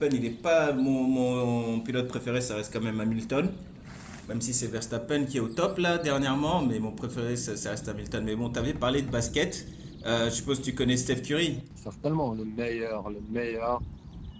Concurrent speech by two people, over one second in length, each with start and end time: none

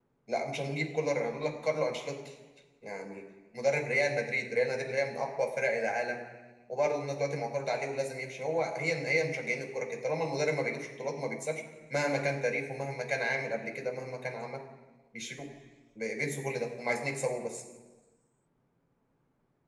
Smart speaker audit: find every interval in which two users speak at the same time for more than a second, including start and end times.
none

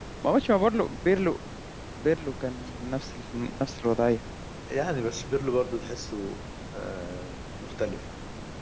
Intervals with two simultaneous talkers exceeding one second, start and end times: none

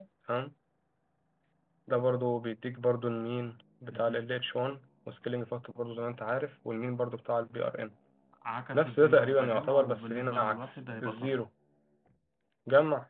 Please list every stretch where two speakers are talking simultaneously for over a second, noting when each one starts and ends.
8.7-11.4

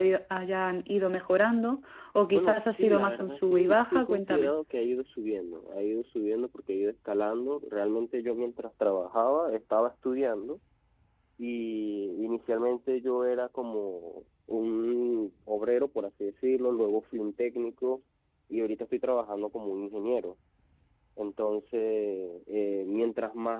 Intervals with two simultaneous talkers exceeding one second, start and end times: 2.3-4.5

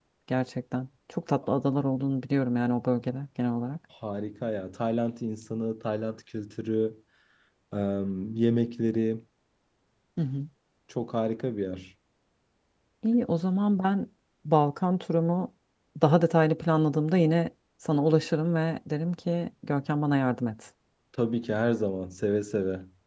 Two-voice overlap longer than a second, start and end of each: none

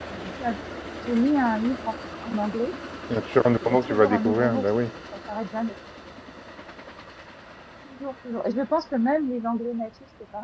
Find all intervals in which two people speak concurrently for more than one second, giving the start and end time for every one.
3.5-4.8

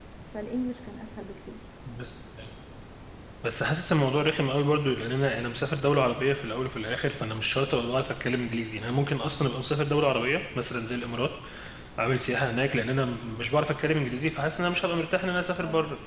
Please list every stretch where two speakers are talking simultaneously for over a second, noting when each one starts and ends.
none

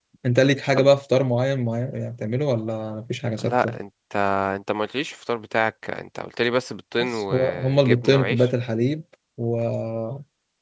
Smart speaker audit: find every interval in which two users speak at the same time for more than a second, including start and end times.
7.0-8.5

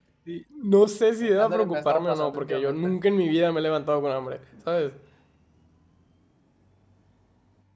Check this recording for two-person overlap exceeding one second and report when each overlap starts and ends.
1.2-3.0

